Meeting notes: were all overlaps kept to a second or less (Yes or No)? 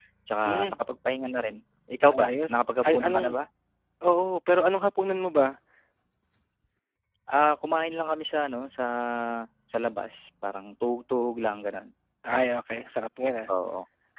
No